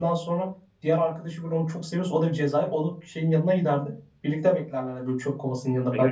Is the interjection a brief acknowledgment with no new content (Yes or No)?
No